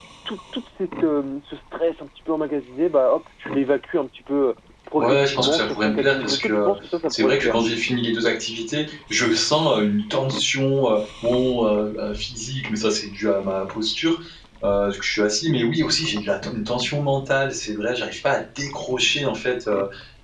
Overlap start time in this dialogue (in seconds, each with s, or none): 5.0 s